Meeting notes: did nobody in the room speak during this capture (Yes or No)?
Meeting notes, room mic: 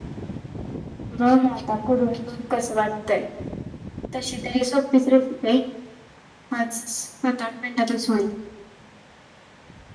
Yes